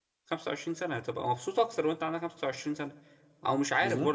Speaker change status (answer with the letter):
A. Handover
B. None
B